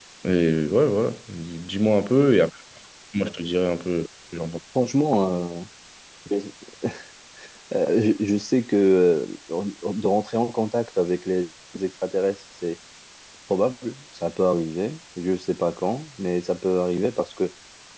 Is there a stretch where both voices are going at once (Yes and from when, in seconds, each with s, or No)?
No